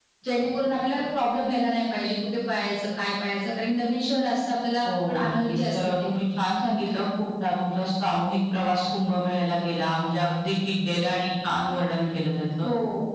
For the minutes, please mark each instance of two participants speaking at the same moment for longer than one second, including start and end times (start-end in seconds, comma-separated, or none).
4.8-6.1